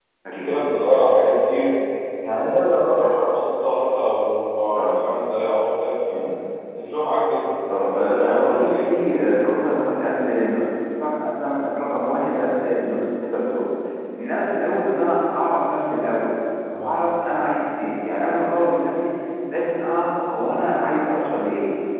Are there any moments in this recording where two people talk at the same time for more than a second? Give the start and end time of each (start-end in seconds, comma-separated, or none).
7.9-9.2